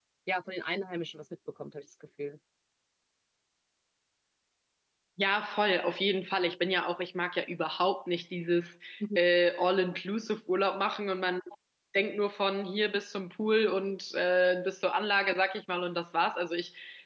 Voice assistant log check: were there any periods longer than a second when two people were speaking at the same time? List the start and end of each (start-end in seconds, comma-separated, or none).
none